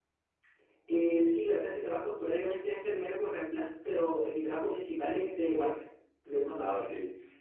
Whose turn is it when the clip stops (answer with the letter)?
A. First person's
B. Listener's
B